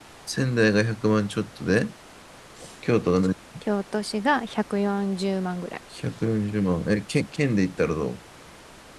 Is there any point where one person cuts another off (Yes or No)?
No